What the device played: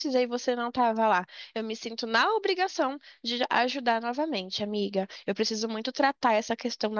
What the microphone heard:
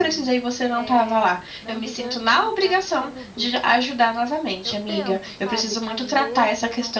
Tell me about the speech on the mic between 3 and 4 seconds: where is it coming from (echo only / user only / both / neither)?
both